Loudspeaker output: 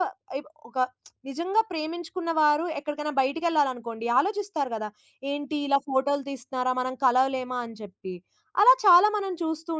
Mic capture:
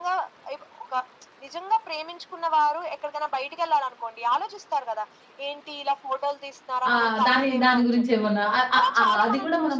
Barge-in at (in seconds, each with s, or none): 6.9 s